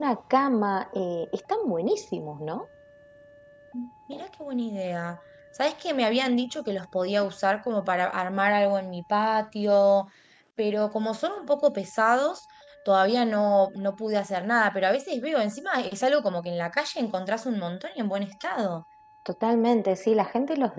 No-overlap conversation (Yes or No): Yes